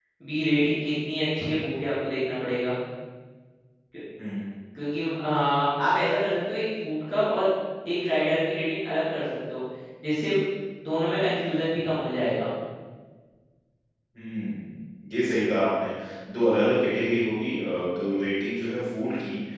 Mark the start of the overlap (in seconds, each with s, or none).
none